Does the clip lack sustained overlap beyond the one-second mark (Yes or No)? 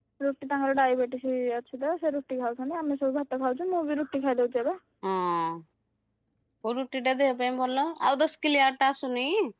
Yes